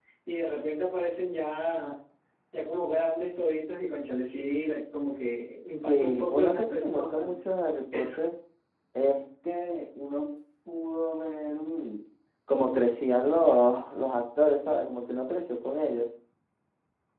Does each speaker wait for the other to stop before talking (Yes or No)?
No